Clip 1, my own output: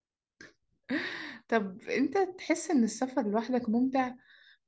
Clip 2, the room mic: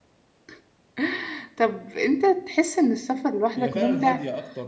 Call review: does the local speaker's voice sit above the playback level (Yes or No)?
No